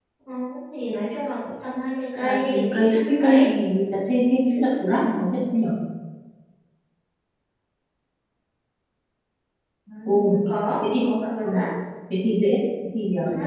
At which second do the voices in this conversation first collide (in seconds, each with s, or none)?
2.2 s